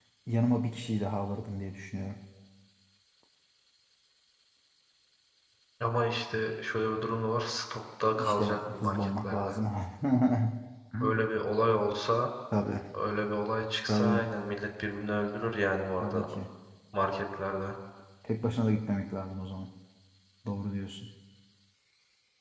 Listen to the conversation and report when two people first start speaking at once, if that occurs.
8 s

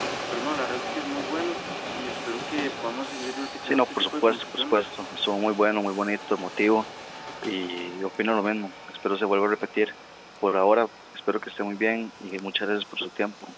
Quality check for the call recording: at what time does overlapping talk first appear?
4 s

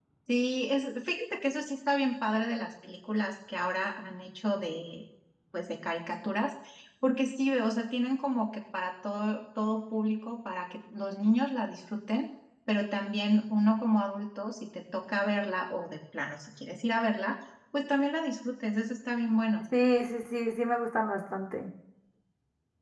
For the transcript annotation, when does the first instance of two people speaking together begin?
none

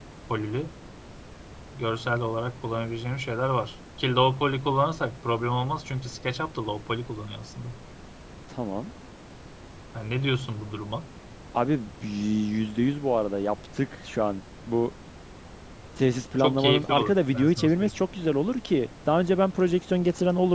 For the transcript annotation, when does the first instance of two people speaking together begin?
16 s

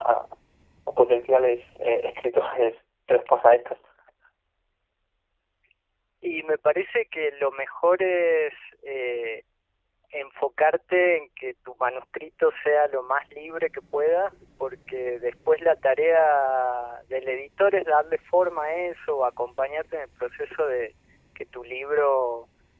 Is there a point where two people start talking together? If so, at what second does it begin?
none

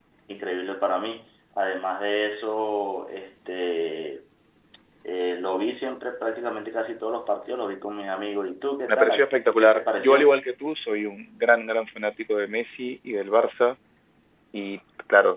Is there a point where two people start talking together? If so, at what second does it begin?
9 s

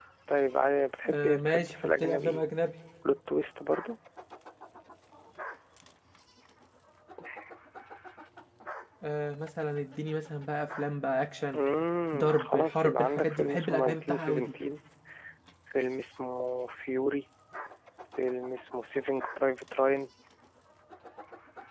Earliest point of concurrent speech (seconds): 1 s

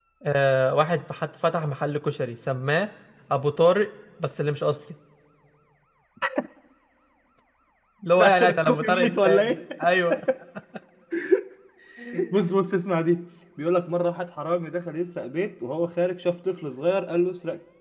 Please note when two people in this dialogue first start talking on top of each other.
8 s

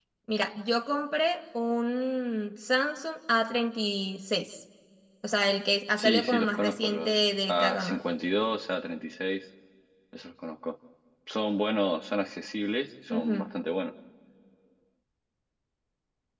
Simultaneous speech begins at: 6 s

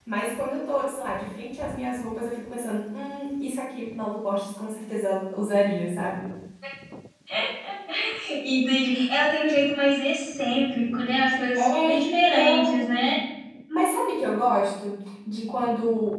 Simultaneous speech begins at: 12 s

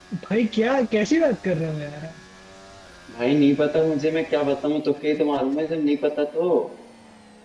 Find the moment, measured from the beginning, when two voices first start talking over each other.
none

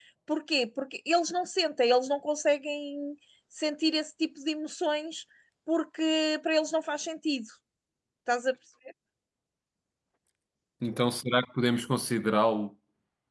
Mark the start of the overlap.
none

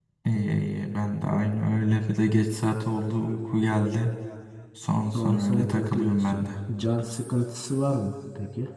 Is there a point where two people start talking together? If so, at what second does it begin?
5 s

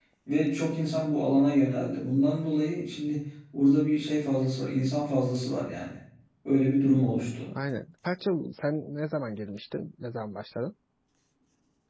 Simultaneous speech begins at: none

